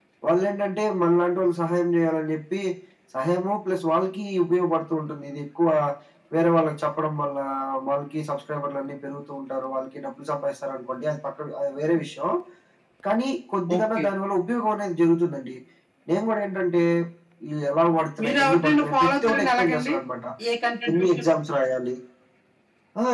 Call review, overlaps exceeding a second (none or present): present